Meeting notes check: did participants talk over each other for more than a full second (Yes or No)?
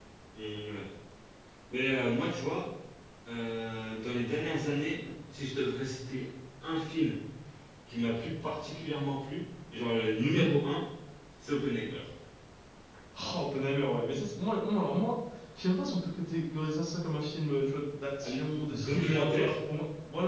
Yes